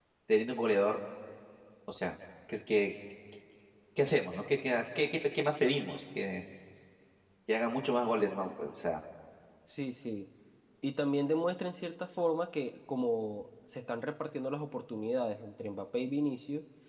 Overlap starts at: none

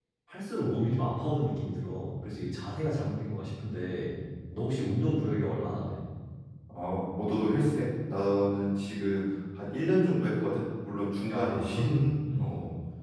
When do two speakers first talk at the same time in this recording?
11 s

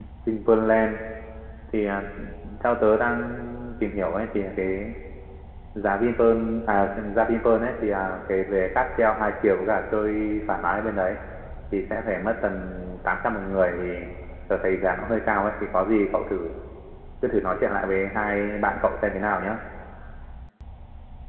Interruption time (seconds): none

